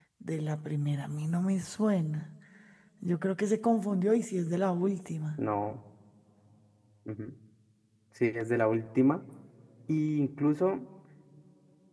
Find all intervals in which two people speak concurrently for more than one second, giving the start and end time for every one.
none

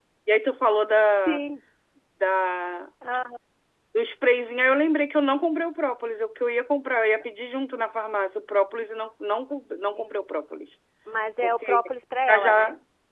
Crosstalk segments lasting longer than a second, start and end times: none

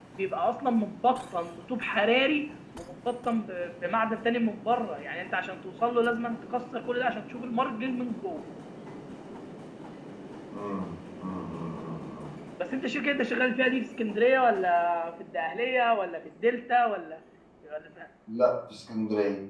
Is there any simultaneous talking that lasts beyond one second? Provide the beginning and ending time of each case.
none

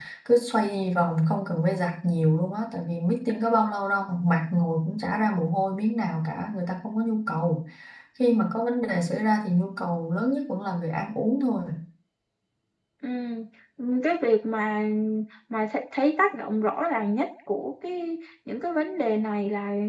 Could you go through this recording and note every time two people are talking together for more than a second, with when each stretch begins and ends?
none

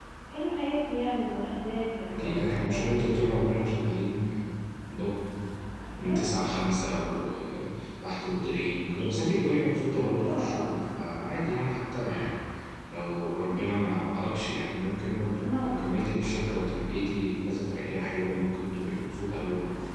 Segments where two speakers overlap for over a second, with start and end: 2.1-3.6

